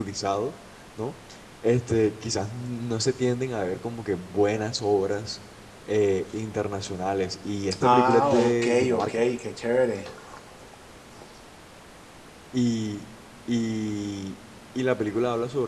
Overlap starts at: 7.8 s

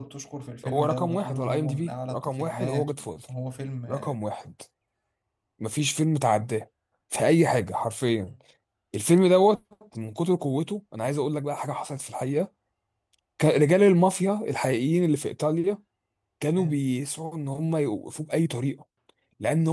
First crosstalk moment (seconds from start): 0.6 s

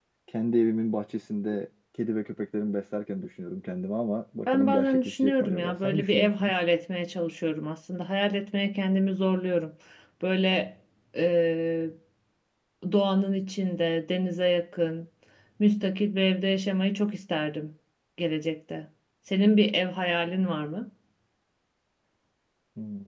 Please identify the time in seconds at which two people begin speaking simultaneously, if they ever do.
4.5 s

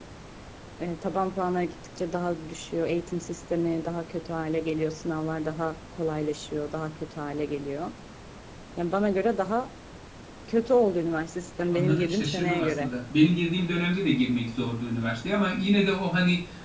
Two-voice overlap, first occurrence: 11.7 s

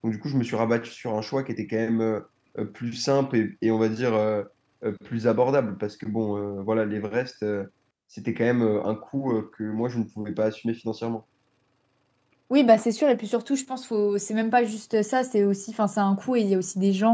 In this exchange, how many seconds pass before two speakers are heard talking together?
none

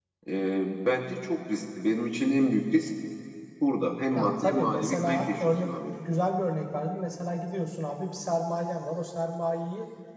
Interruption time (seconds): 4.1 s

